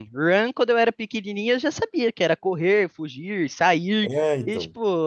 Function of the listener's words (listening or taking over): listening